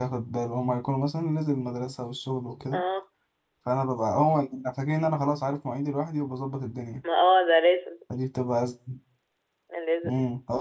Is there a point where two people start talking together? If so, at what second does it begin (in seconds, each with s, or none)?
none